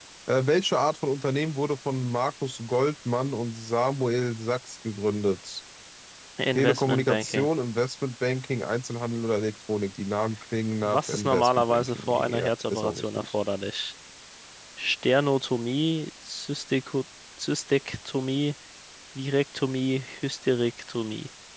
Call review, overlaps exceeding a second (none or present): present